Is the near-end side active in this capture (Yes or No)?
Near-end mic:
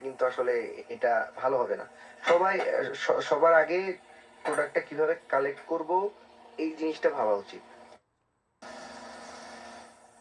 No